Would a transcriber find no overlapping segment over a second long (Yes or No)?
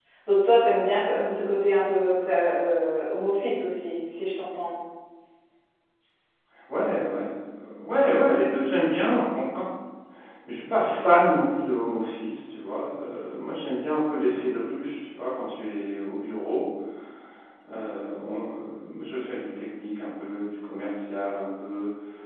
Yes